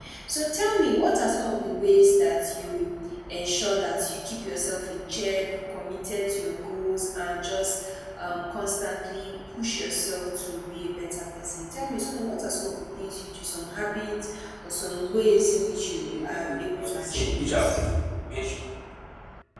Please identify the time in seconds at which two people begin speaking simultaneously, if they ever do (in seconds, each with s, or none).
16.1 s